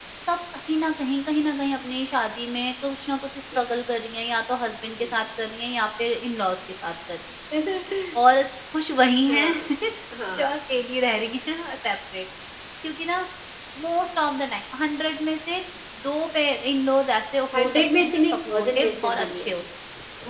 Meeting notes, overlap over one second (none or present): present